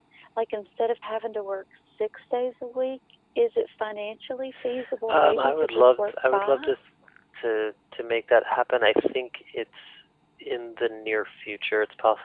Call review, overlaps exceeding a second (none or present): present